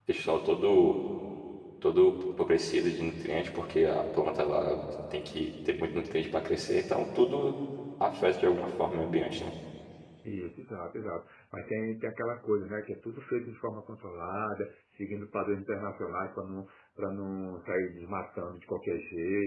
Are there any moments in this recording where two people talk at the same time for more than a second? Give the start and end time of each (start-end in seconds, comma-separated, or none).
none